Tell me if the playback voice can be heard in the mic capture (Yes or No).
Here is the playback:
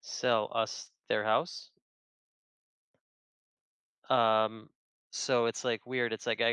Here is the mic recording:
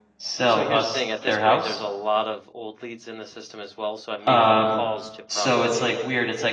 Yes